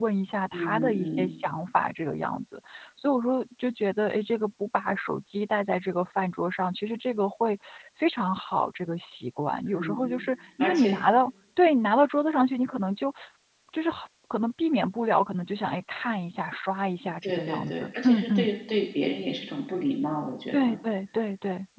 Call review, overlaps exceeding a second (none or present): present